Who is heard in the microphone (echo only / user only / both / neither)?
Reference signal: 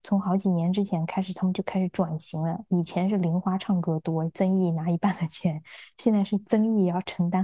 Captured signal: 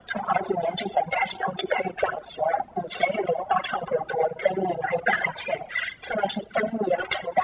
echo only